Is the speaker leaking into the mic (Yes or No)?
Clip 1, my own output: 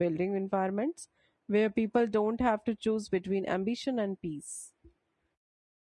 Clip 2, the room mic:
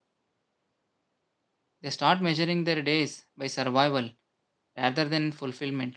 No